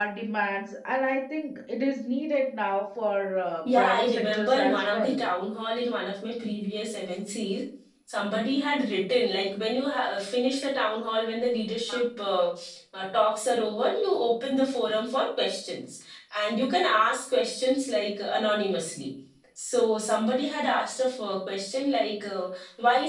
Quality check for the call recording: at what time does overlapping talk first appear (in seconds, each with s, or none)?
3.6 s